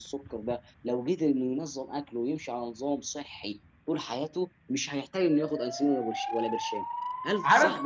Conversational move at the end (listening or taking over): taking over